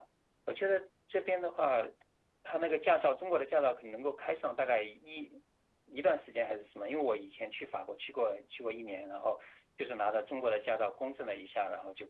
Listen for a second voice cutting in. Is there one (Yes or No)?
No